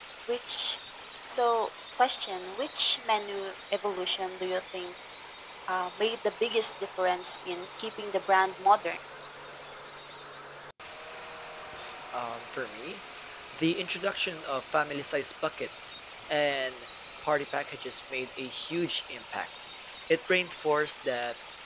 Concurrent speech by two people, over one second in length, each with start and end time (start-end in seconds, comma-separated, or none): none